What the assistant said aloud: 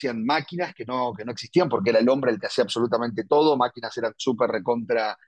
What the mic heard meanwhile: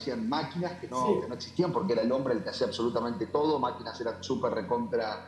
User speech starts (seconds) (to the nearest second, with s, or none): 1 s